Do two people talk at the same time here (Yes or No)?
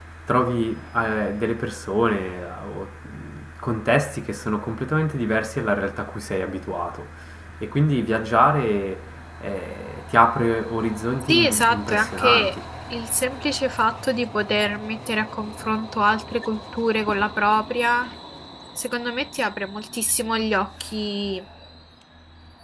Yes